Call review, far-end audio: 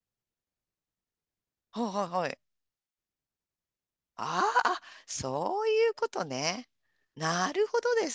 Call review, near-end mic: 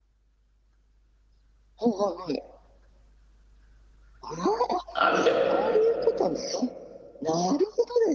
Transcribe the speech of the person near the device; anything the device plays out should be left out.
あるじゃない。

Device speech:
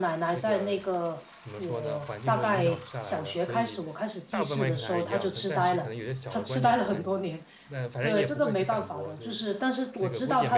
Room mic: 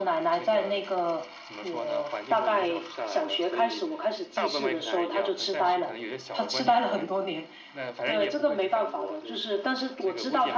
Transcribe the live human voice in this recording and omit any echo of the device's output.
none

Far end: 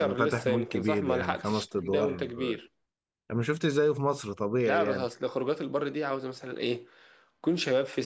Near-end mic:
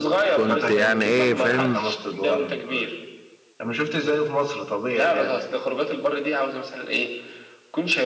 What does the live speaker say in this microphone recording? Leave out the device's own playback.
كنت يعني ايه فاهم

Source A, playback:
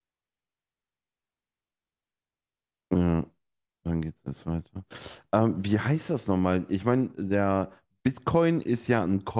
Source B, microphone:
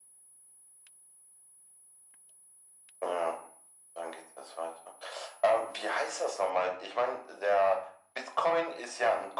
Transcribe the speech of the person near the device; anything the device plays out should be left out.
none

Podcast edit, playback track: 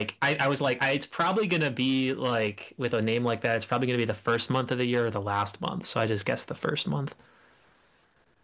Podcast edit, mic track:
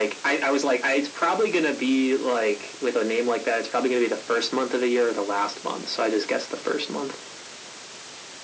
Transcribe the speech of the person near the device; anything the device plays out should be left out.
none

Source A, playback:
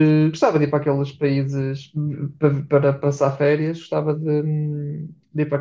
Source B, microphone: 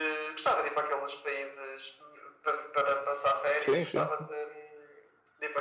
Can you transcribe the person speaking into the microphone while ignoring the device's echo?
Sim, sim, sim,

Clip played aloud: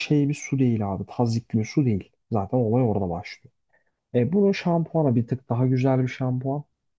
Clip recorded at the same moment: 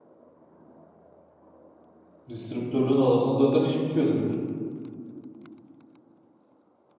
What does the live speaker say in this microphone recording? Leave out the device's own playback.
Distribütörlüğünü alırsan zaten iş bitiyor direkt.

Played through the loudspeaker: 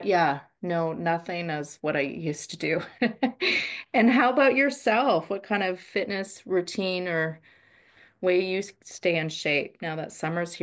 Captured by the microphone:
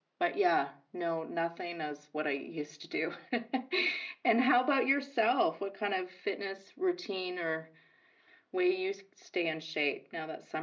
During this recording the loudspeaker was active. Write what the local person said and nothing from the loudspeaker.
none

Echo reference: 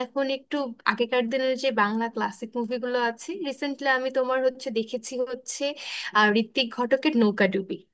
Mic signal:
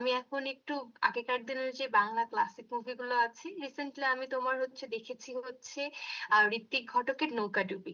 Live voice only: none

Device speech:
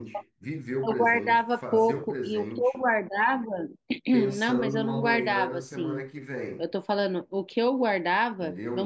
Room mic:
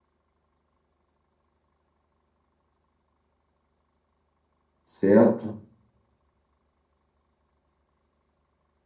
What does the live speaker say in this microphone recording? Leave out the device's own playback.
certo?

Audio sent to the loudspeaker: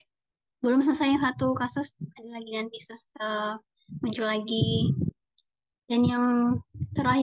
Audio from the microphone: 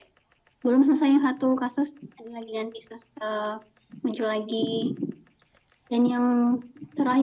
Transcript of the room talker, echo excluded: none

